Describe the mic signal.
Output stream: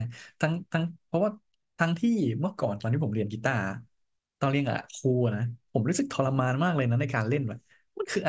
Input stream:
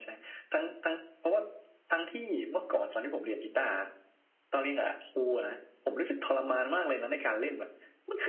echo only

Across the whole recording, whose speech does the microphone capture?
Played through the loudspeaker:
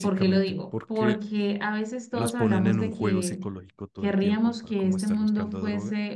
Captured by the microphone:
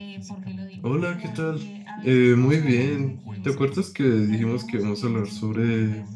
both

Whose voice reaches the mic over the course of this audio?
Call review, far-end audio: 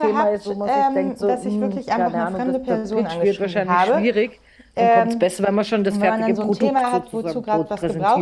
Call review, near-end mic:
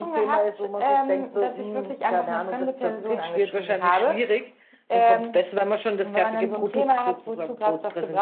echo only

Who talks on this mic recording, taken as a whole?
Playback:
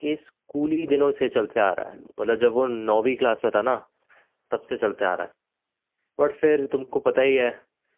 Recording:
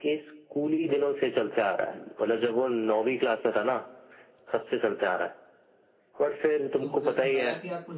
both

